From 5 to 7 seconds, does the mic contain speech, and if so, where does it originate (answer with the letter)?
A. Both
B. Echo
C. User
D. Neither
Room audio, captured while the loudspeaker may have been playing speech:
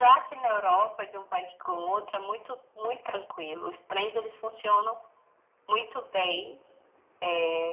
B